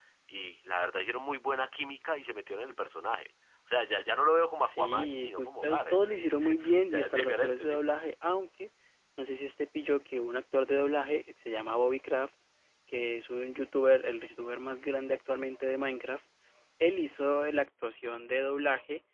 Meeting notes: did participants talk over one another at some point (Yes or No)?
Yes